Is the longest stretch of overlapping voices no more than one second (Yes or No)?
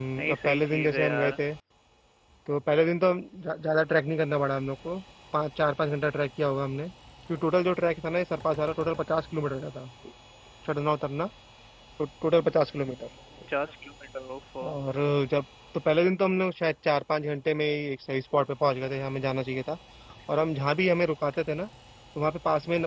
No